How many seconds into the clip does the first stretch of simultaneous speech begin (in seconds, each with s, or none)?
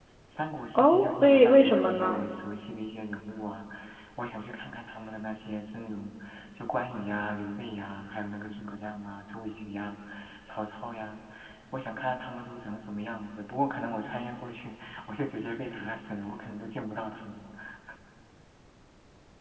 0.8 s